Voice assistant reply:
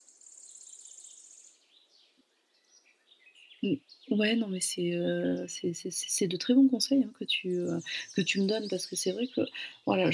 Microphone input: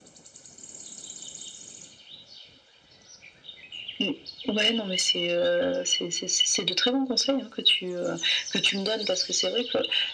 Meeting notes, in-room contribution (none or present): none